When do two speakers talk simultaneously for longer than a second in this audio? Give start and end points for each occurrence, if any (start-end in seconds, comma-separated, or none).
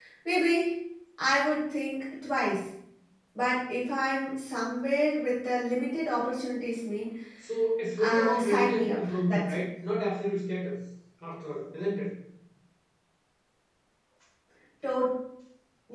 8.0-9.6